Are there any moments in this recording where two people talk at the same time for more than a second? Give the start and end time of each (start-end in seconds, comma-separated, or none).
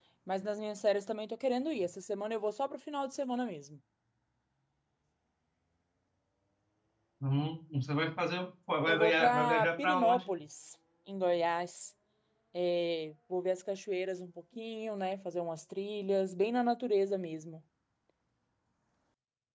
8.9-10.3